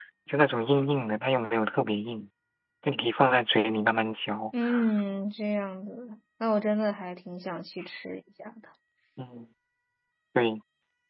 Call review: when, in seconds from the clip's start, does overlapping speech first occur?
none

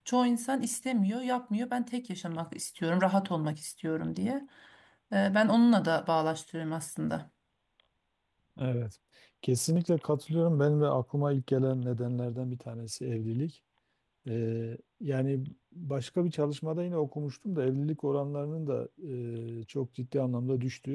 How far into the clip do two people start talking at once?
none

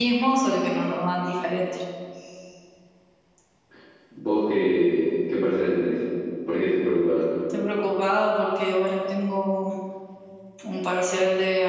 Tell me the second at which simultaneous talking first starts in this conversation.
none

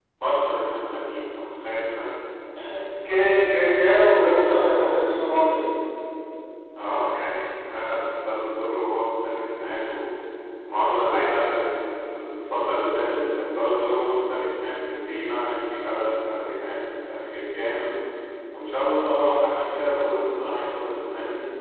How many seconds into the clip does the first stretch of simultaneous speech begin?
none

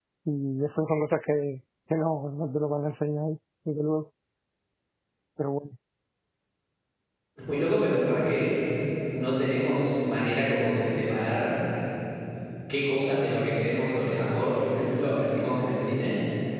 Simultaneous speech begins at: none

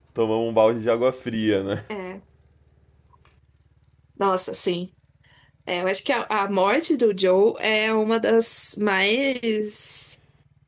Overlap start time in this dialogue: none

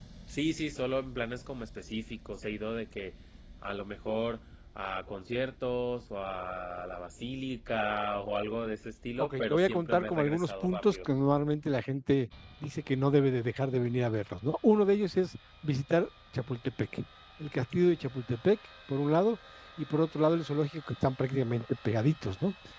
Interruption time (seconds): 9.2 s

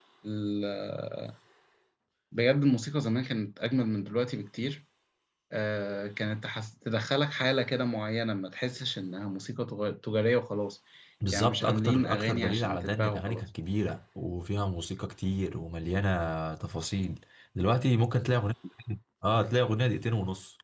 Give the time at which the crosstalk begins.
11.3 s

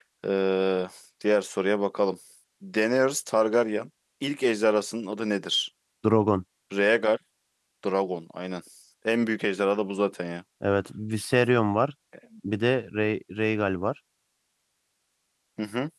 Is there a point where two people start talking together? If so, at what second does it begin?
none

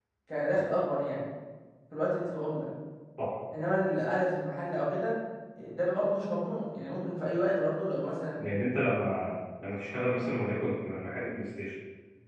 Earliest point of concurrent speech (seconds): none

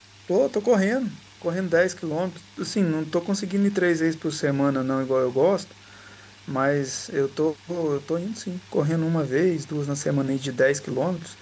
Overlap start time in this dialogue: none

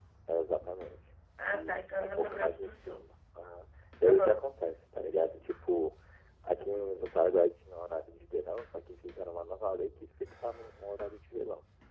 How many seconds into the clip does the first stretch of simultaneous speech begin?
1.4 s

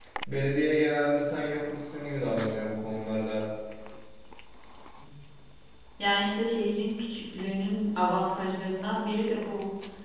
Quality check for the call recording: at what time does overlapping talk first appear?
none

